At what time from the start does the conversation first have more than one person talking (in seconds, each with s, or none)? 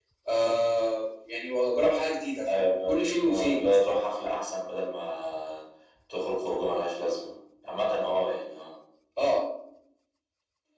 2.5 s